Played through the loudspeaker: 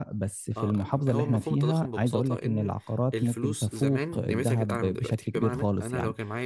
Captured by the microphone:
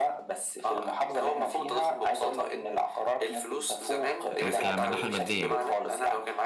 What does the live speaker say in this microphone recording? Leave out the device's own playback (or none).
آه، ك... من الناحيه الماديه يعني